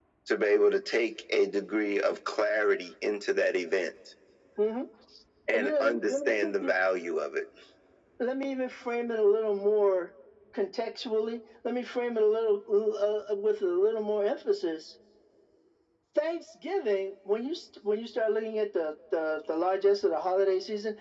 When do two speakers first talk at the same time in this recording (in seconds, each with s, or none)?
5.5 s